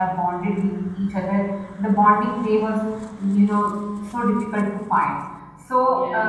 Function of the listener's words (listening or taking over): listening